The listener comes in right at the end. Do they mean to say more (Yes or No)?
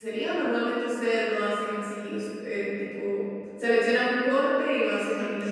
Yes